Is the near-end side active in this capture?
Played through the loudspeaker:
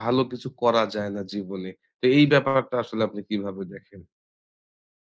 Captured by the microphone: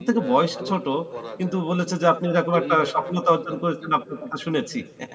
Yes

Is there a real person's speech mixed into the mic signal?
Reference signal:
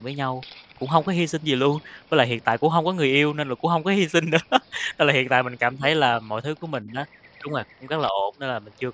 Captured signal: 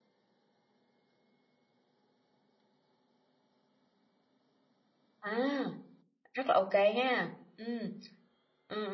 Yes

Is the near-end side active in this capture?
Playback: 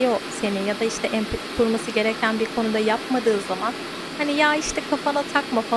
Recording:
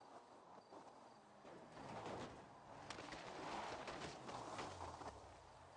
No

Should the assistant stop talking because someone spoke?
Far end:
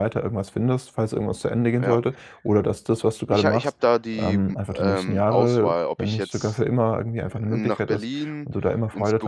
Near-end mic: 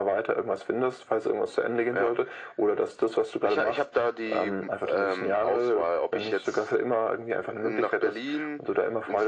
No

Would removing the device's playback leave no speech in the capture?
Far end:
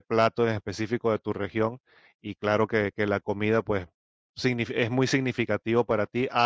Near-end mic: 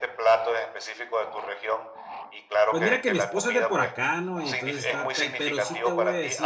No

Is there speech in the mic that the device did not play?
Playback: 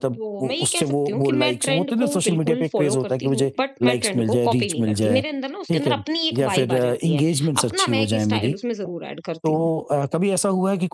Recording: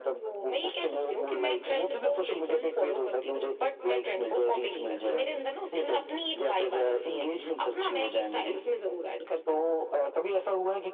No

